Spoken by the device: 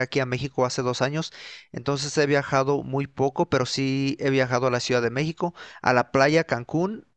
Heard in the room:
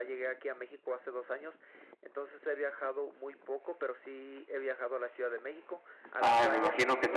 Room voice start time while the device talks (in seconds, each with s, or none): 6.2 s